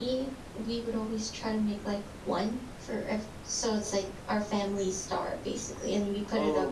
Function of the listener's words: taking over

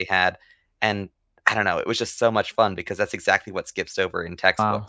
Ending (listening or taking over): taking over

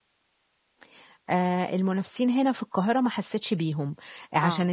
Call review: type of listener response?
listening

